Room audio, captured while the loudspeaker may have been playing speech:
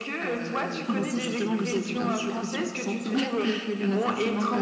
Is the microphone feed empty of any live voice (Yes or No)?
No